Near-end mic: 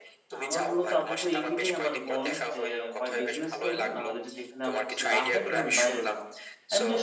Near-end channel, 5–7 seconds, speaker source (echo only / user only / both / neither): both